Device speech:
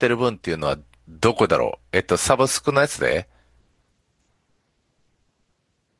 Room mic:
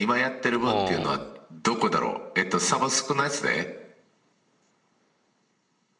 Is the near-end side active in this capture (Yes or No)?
Yes